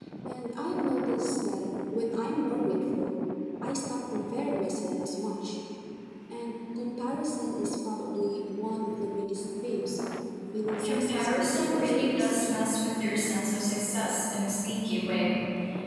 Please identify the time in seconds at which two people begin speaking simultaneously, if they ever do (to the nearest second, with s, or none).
11 s